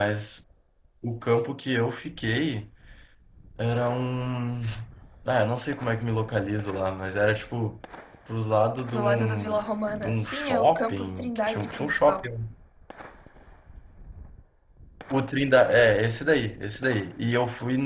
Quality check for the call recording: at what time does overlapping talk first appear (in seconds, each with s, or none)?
8.9 s